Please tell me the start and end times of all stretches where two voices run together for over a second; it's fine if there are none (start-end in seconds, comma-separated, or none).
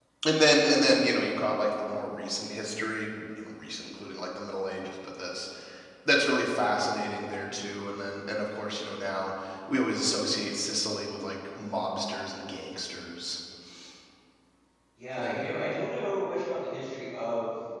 none